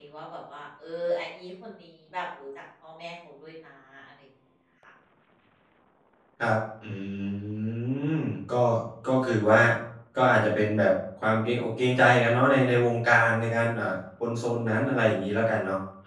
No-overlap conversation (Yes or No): Yes